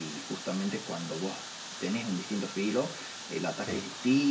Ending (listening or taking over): listening